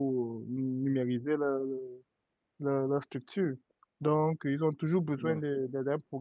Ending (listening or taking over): listening